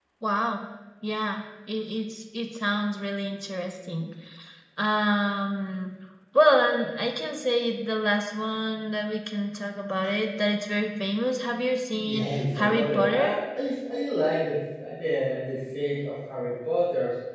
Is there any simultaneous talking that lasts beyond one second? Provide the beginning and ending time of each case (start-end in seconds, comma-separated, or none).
12.1-13.3